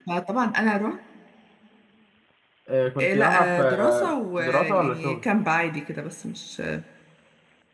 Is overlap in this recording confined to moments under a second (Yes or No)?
No